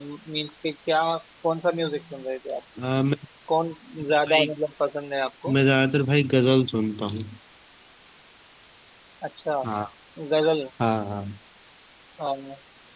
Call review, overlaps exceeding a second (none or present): none